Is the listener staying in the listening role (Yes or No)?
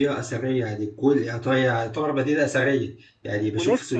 Yes